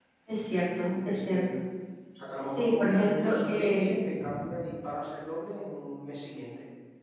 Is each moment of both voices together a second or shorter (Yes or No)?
No